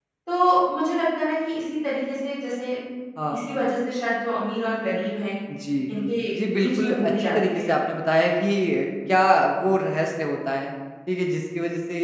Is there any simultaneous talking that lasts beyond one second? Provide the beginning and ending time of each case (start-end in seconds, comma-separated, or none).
6.5-7.7